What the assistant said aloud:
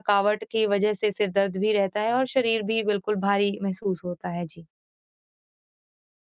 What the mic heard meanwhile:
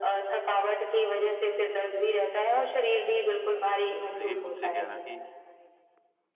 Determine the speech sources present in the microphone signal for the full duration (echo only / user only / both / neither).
both